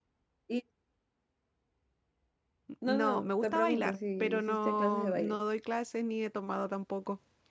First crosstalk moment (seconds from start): 3 s

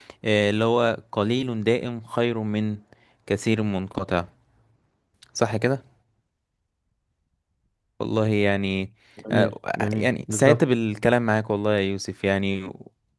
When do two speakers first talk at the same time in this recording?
9 s

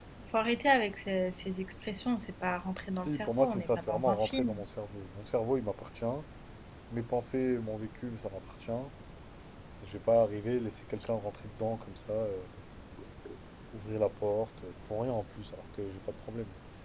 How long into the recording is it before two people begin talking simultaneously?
3 s

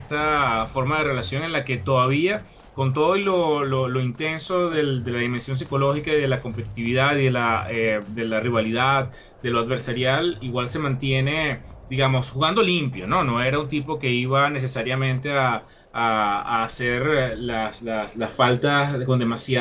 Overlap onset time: none

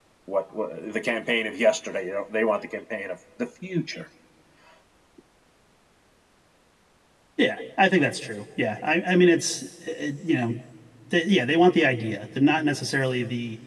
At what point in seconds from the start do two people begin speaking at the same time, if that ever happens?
none

